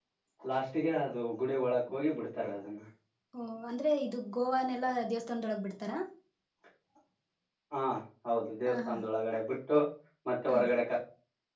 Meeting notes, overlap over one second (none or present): none